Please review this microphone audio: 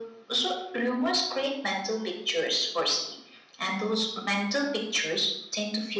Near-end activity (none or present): none